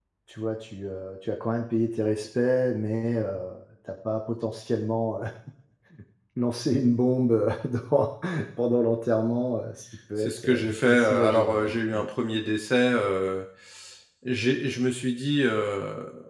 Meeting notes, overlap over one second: present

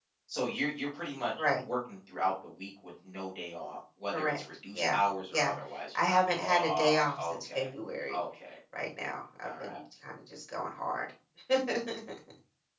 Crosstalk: present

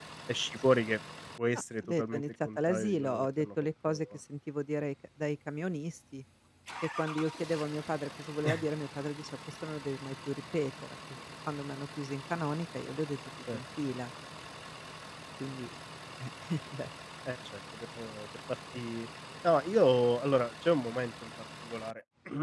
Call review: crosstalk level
present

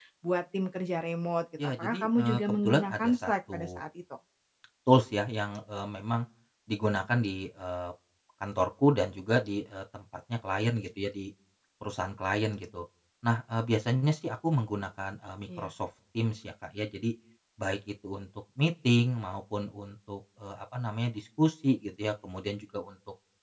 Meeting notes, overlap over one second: present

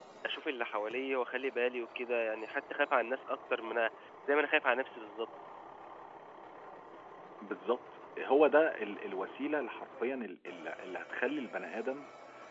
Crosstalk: none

